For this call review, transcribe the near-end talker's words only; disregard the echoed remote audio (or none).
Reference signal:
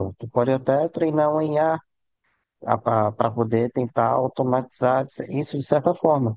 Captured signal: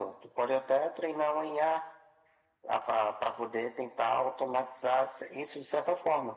none